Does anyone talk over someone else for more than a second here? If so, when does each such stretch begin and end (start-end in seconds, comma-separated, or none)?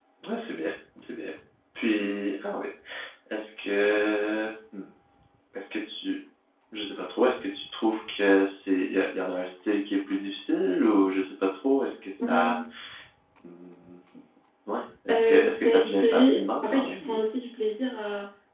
15.1-17.2